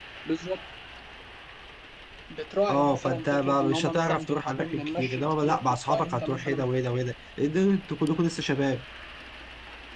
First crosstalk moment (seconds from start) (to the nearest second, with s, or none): 3 s